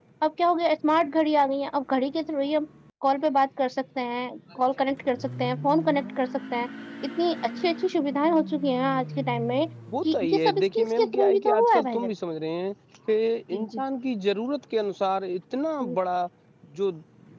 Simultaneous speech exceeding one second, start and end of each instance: 10.1-12.1

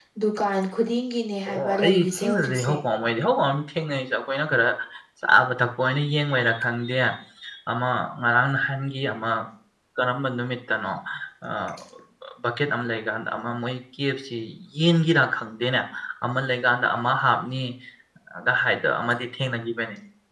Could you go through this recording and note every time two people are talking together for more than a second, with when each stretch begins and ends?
1.5-2.8

